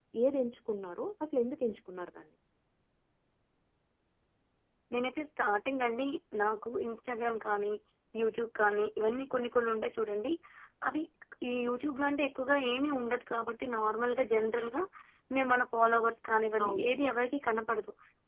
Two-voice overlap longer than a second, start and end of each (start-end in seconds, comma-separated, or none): none